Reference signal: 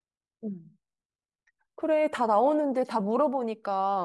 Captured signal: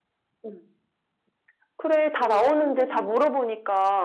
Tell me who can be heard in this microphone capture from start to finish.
both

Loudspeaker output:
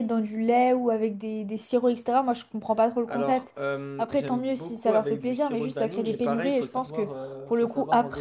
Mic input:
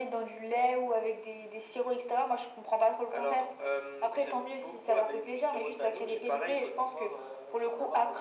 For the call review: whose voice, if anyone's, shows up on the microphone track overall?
echo only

